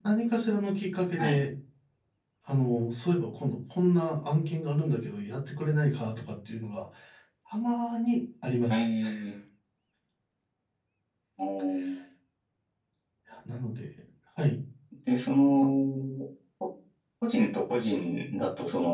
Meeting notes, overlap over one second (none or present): none